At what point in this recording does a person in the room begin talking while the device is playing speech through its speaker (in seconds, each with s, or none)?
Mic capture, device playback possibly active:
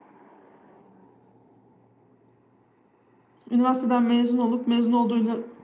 3.5 s